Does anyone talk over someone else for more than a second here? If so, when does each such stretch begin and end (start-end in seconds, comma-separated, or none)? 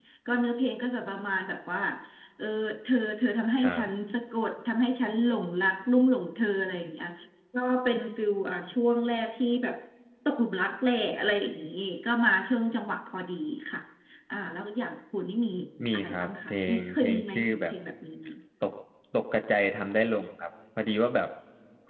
15.9-17.7